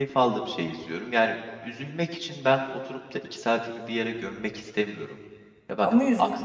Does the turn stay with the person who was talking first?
No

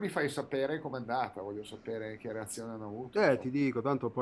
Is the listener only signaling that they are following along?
No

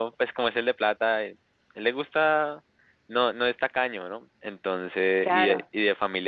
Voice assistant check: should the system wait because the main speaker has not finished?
Yes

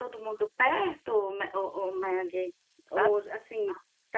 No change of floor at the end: Yes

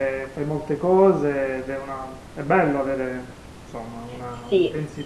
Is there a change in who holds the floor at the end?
Yes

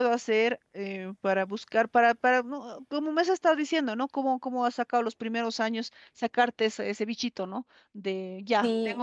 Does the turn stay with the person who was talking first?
Yes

